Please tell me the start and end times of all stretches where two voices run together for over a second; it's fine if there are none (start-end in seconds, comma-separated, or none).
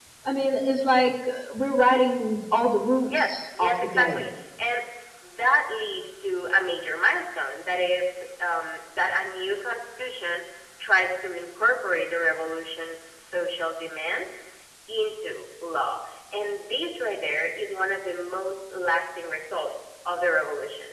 3.1-4.3